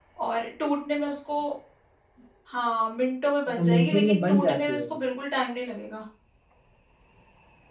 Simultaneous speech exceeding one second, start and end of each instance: 3.5-5.0

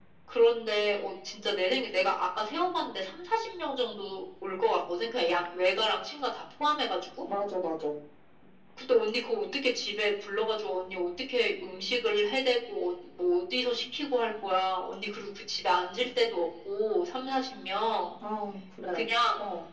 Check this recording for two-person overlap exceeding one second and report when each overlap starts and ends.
none

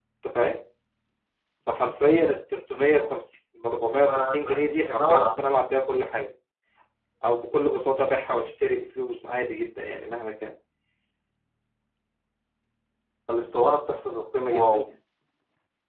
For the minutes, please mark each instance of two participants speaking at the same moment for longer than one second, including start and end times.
4.1-5.3

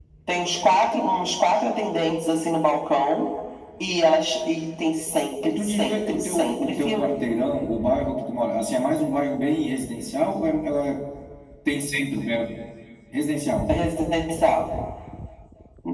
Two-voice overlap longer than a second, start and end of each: 5.5-7.1

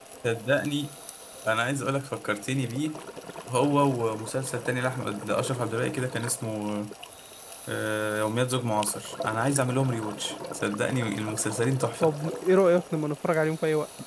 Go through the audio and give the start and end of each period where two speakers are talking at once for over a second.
none

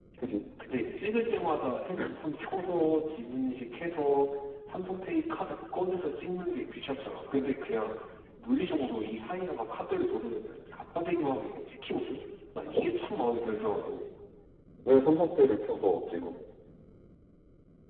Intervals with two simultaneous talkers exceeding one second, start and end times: none

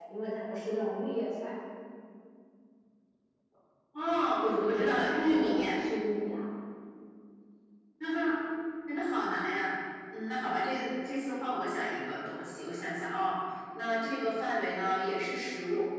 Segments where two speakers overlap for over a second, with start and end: 4.4-5.6

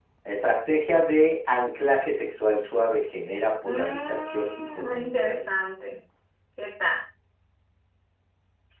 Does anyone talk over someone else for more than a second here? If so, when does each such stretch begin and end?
3.6-5.4

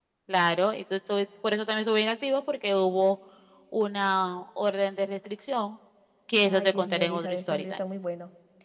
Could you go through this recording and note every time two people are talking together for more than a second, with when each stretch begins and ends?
6.4-7.7

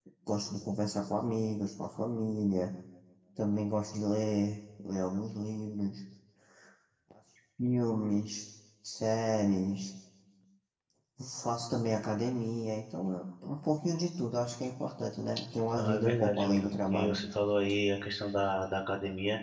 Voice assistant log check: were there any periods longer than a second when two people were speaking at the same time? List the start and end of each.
15.8-17.1

